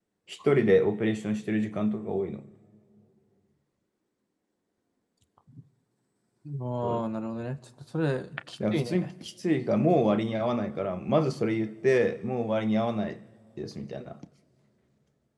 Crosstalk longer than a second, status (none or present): none